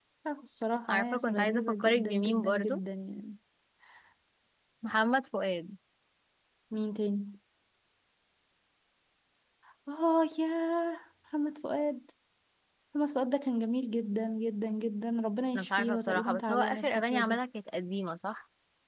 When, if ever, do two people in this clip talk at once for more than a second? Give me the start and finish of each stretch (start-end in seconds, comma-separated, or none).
0.9-2.8, 15.5-17.4